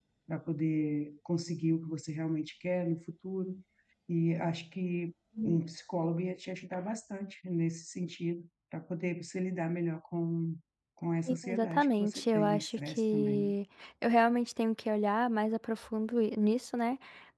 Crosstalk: present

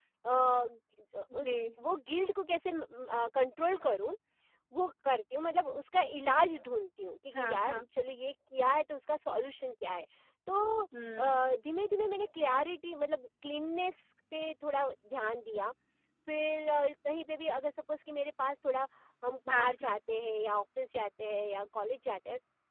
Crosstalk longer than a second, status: none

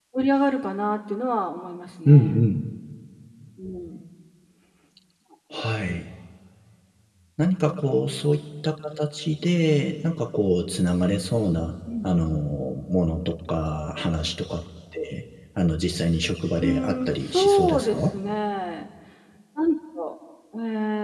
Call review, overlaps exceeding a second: present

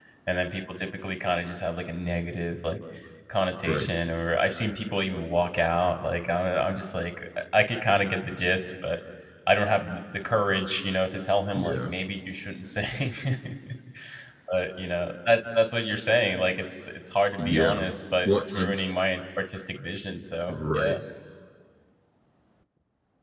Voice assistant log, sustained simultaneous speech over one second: none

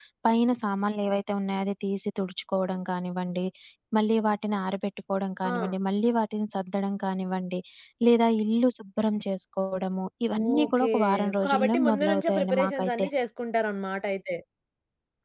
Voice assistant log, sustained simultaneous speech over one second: present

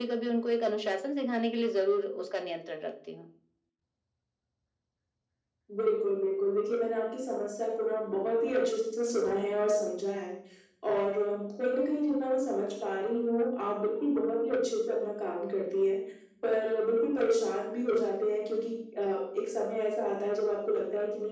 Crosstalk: none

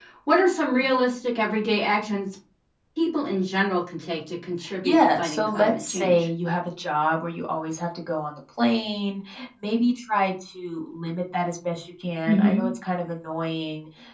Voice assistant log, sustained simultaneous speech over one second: present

